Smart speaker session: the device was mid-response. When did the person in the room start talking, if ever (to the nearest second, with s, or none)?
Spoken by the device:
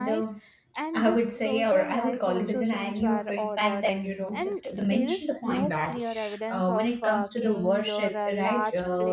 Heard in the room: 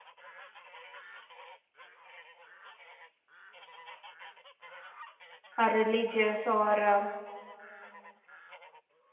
6 s